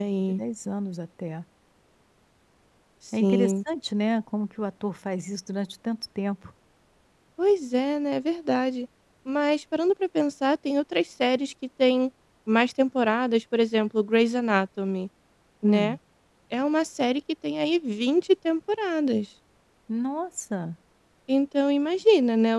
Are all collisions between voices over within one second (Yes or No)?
Yes